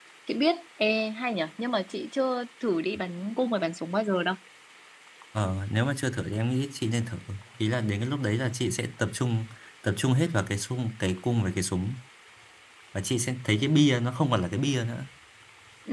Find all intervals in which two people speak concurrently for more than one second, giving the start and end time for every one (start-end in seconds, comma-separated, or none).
none